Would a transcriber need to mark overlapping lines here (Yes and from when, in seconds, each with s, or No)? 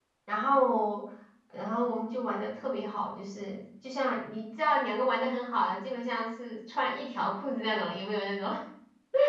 No